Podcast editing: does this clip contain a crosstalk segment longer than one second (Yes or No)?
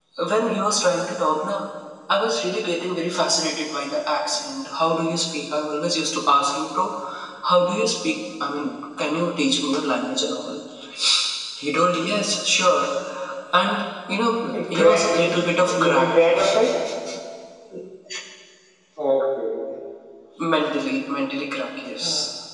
Yes